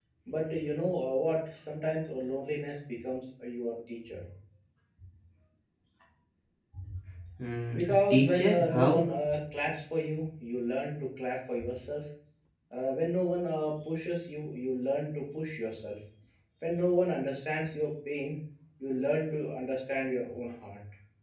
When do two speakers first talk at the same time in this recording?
7.8 s

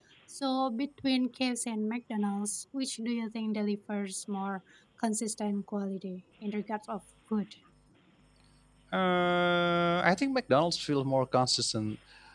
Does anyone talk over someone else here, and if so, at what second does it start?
none

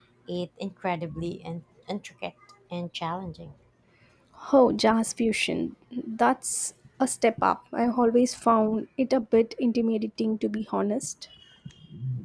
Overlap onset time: none

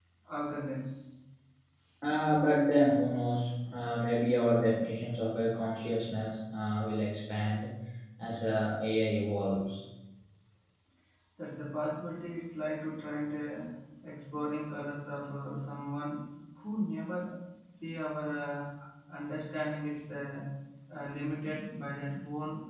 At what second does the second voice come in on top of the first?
none

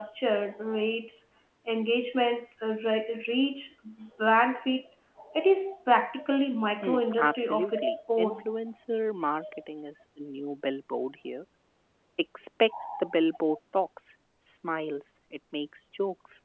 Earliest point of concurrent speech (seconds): 6.8 s

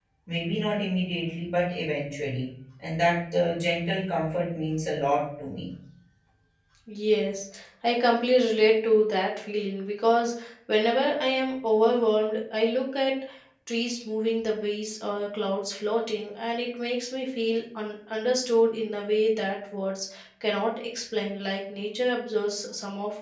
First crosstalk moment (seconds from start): none

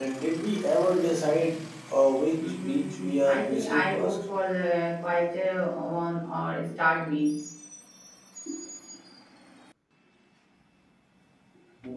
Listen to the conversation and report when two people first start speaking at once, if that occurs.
2.4 s

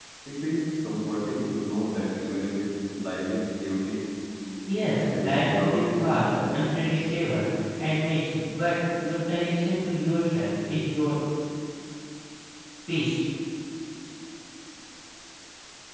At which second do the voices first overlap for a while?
5.0 s

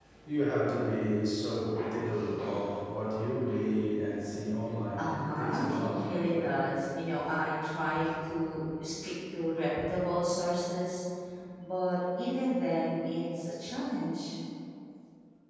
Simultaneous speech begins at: 5.0 s

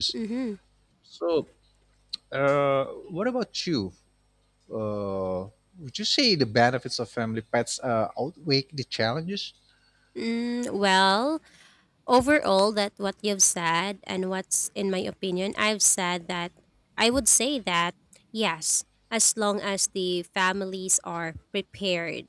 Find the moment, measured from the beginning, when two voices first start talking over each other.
none

